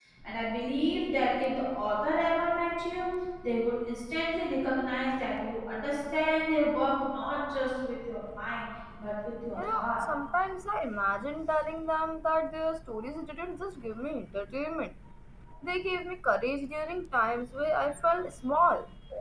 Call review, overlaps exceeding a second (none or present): none